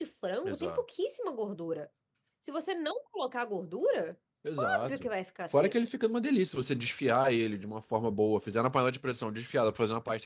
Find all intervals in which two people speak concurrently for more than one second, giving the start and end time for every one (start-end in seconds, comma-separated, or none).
none